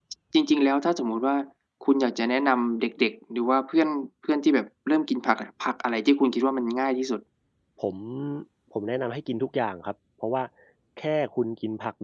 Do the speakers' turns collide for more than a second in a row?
No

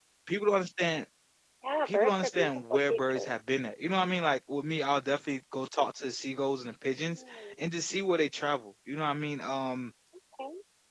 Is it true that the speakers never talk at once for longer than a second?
No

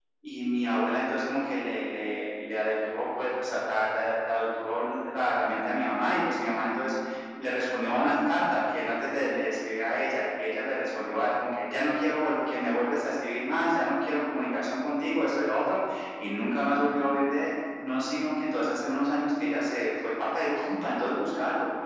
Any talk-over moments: No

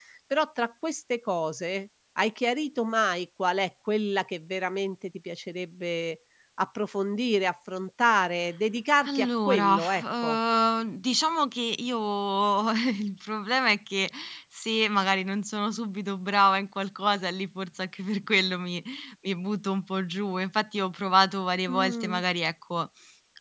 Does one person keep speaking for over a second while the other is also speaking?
Yes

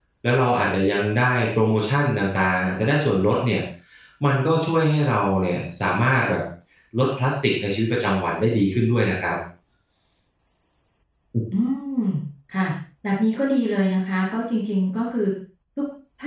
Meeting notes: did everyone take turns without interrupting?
Yes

